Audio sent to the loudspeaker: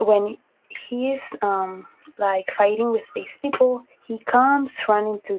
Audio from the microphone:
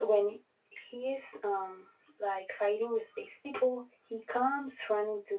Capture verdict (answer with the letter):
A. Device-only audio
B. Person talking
A